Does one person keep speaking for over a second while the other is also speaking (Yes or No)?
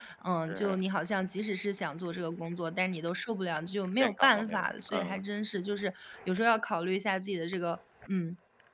Yes